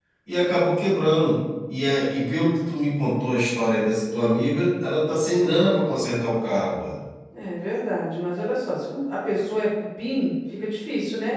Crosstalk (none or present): none